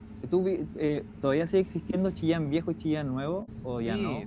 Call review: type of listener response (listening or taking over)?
taking over